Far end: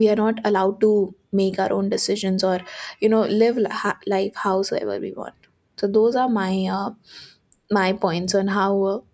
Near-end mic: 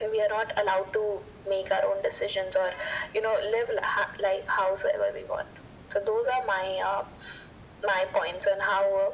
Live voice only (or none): none